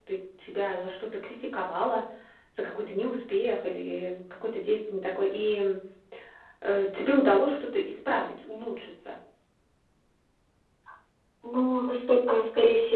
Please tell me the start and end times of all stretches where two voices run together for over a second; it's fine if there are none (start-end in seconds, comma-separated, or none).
none